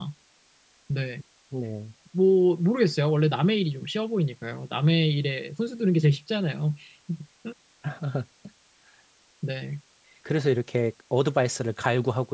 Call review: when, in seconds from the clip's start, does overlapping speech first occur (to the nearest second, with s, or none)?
none